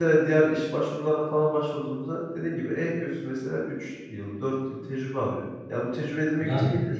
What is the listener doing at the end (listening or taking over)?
listening